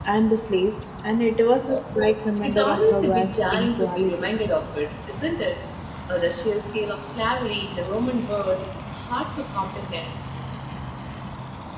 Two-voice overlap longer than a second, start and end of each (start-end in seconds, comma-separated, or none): 2.4-4.3